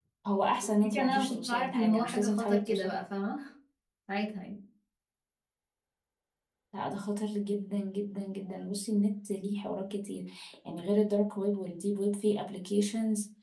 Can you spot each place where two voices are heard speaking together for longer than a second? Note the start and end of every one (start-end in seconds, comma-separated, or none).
0.6-3.0